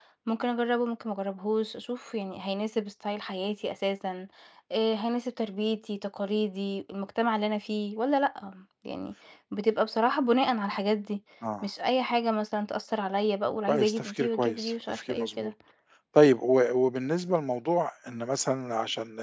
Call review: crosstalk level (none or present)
present